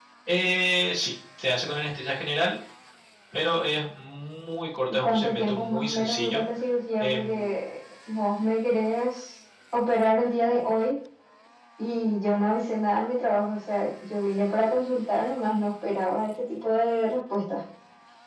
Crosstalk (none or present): present